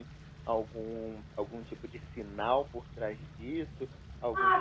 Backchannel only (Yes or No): No